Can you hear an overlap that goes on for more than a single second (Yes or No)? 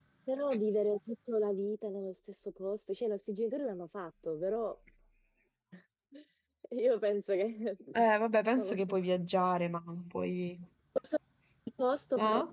No